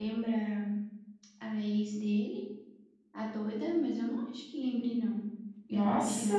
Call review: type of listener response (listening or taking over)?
taking over